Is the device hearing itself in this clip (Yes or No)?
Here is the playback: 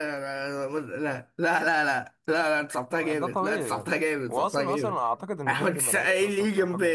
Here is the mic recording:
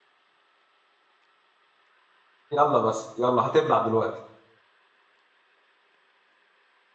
No